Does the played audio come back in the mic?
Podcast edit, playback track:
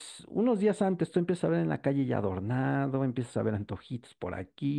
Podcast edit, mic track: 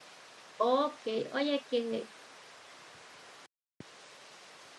No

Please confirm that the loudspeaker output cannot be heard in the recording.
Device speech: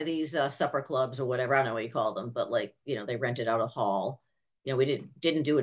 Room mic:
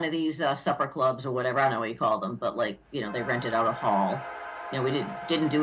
No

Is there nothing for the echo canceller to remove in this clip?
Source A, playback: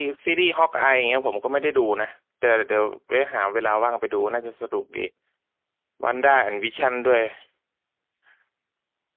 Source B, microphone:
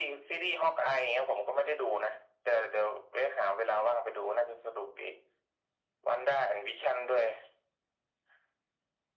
No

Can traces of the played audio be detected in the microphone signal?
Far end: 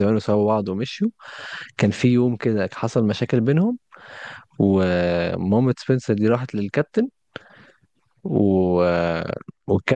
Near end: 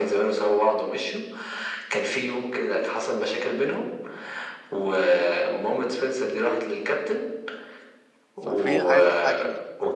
Yes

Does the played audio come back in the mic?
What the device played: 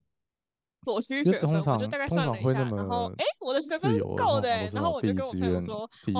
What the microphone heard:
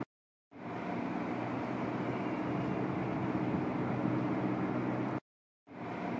No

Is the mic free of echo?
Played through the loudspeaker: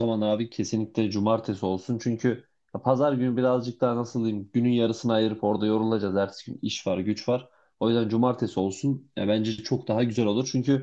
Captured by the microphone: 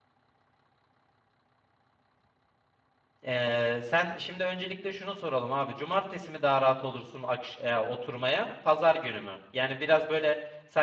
Yes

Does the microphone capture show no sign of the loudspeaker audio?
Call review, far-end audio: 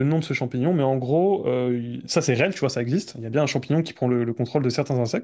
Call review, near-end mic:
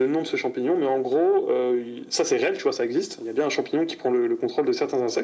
No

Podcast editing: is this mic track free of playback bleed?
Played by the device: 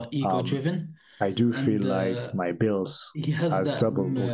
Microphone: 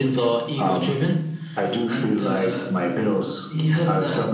No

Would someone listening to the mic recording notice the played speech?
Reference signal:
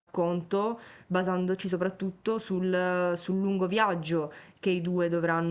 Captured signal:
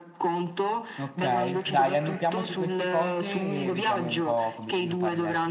Yes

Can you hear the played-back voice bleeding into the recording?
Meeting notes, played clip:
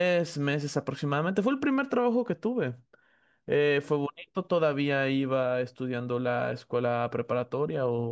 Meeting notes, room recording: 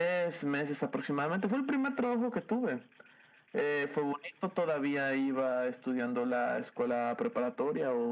Yes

